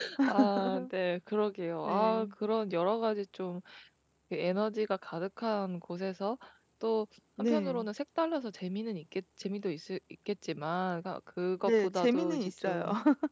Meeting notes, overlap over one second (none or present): present